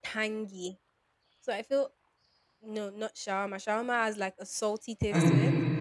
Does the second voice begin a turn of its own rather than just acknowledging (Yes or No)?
No